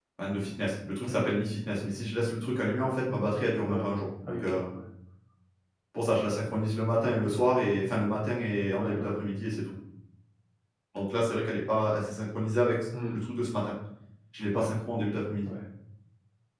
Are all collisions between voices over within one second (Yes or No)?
Yes